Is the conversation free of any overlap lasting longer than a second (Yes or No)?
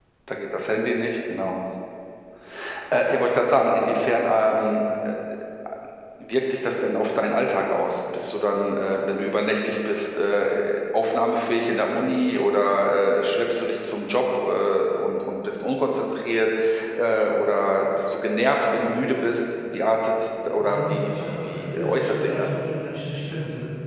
No